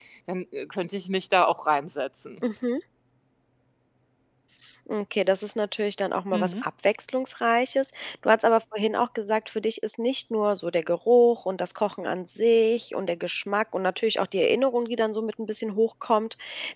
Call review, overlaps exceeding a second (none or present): none